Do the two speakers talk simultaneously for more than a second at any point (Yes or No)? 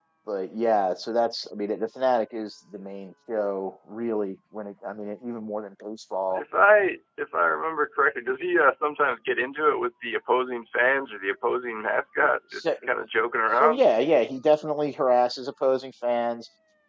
No